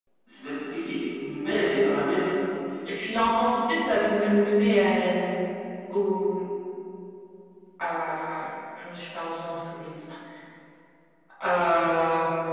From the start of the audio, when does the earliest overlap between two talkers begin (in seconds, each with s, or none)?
none